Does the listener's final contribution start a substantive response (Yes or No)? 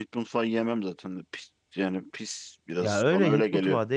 Yes